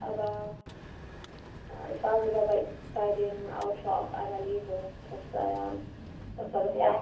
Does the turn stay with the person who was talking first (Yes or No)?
Yes